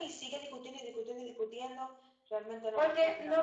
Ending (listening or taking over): taking over